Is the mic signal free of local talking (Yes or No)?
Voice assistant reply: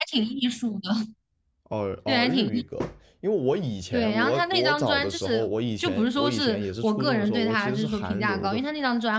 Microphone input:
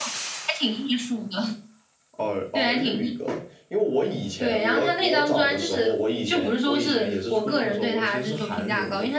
Yes